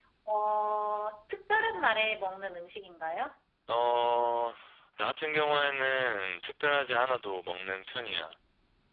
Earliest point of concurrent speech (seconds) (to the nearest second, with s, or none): none